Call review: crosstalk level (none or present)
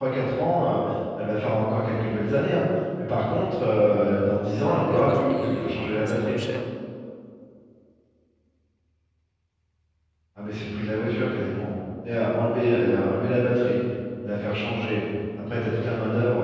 present